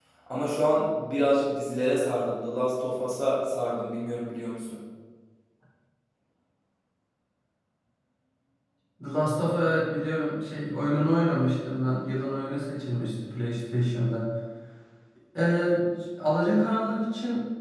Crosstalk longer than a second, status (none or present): none